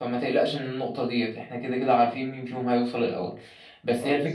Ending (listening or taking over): listening